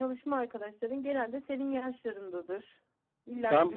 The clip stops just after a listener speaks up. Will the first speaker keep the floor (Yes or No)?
No